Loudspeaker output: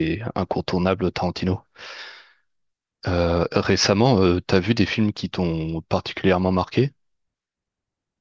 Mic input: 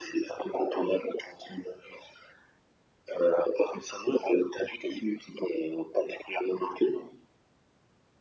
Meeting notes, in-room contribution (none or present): none